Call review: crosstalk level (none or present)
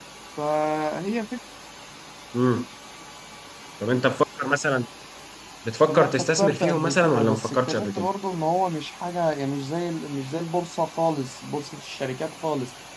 present